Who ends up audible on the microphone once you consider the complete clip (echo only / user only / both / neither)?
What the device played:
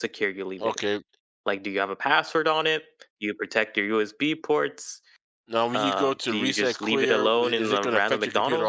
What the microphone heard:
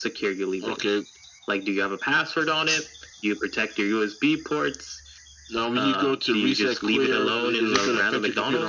echo only